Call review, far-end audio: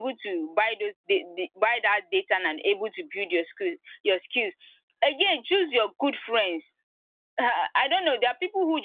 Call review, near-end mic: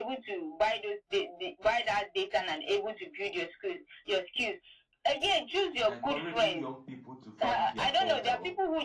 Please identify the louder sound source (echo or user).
echo